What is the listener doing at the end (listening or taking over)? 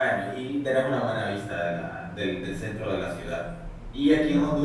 listening